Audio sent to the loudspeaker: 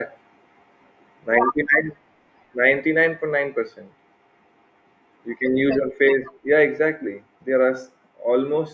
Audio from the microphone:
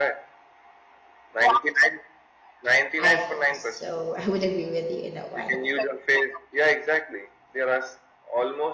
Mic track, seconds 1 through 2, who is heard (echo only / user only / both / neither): echo only